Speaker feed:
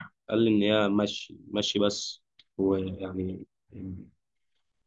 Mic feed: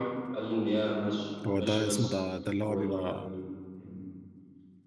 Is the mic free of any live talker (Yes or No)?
No